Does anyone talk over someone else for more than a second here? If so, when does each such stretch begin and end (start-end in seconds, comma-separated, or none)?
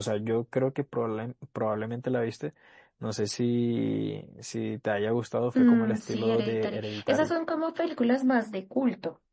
5.5-7.3